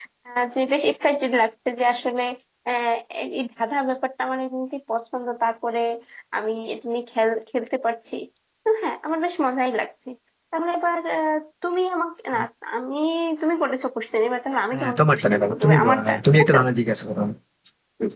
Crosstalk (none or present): present